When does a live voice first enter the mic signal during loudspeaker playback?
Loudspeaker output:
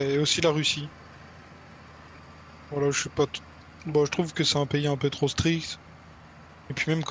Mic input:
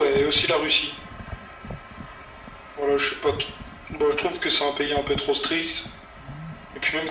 none

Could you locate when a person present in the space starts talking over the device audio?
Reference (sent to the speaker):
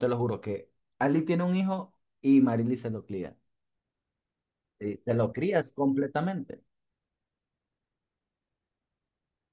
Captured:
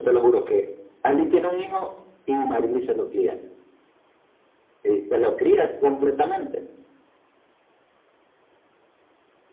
none

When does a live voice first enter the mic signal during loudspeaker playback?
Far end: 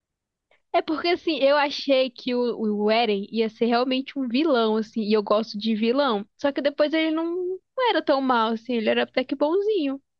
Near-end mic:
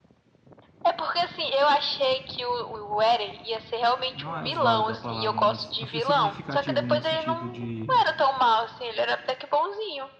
4.1 s

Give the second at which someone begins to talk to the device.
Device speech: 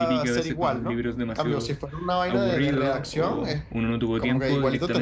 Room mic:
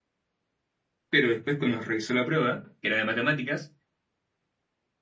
1.1 s

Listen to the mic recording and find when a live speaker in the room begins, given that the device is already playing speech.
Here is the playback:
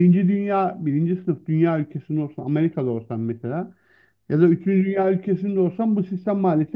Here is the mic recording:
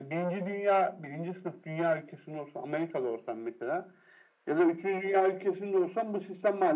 none

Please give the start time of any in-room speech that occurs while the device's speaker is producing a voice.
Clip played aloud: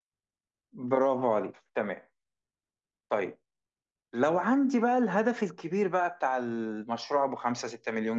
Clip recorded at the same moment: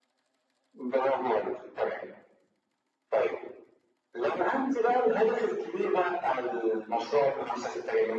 none

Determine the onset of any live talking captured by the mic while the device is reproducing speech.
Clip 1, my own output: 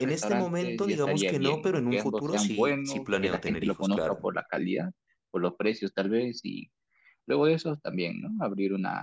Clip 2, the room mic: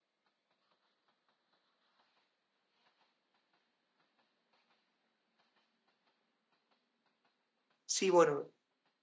7.8 s

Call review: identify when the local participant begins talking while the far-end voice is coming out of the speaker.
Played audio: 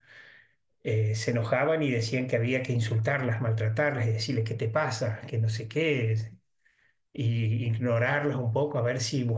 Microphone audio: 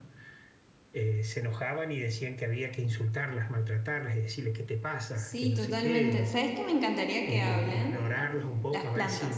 5.1 s

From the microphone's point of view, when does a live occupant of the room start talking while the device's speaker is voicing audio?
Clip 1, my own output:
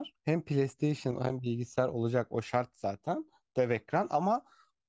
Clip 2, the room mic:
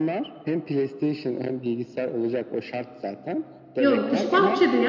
3.8 s

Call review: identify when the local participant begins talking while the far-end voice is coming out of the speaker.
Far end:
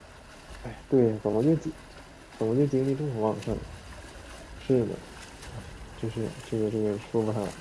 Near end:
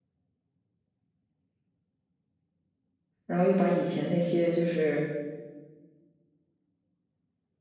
3.3 s

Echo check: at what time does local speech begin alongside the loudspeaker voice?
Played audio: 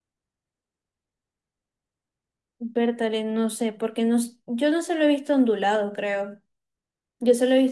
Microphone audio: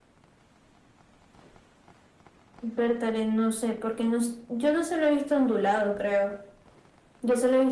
none

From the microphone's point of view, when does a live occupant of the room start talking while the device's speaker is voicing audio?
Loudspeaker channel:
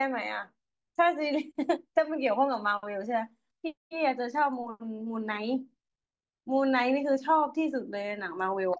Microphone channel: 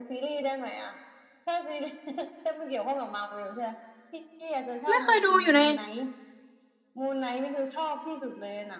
4.9 s

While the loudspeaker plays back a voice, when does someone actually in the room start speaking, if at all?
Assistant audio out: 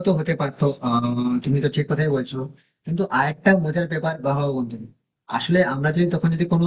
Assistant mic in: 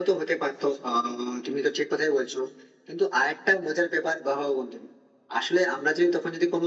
none

